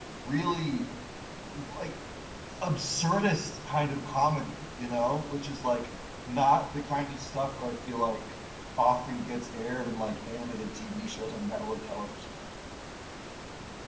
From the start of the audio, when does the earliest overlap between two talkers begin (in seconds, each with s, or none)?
none